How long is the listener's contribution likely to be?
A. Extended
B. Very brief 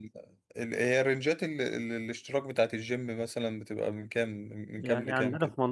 A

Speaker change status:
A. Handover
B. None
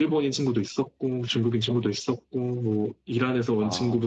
B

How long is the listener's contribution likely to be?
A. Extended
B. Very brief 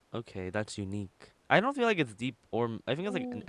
A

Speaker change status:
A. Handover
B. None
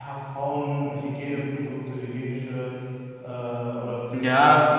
A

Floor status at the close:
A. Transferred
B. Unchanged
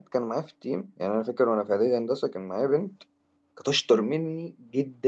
B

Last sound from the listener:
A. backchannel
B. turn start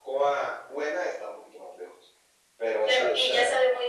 B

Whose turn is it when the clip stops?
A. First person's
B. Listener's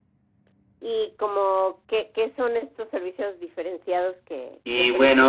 B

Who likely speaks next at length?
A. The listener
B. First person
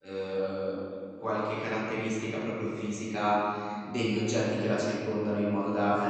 B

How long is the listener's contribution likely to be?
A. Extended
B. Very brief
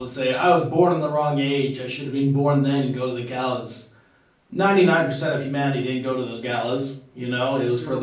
B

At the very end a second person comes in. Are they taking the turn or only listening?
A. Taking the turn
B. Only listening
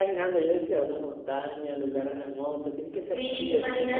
A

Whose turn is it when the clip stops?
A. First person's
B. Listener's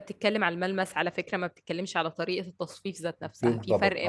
A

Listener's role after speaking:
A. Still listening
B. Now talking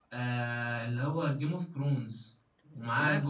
A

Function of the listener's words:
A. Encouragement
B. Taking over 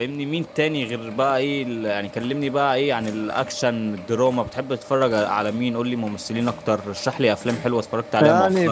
B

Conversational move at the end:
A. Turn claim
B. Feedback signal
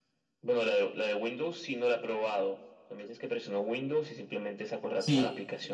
A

